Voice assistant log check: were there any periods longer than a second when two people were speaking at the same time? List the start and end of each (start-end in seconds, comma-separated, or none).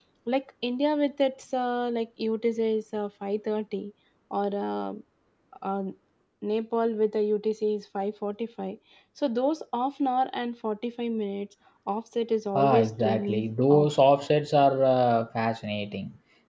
12.6-13.9